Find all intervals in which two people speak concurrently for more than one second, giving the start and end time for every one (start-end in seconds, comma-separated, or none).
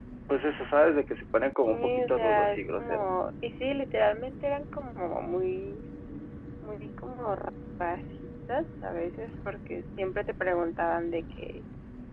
1.5-3.2